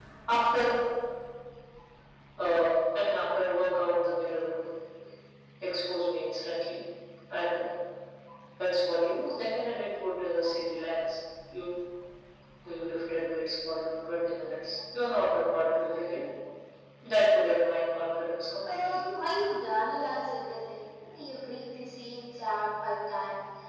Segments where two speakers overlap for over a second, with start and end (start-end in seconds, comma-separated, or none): none